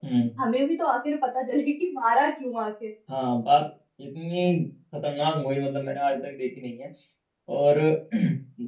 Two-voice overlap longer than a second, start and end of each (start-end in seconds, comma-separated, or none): none